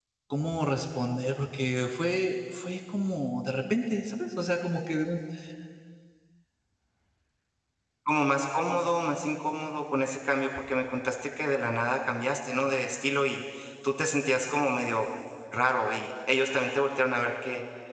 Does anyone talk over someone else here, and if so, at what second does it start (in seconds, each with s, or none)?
none